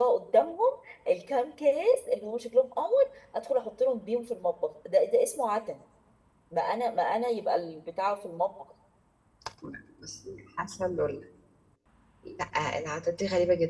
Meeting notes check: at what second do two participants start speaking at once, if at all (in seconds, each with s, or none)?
none